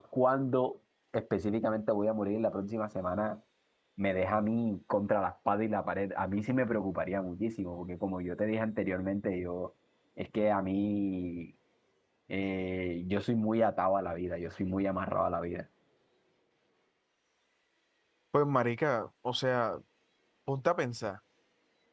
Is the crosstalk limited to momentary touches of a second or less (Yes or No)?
Yes